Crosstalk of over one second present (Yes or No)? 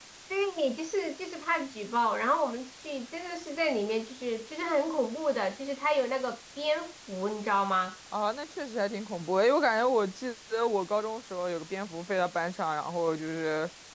No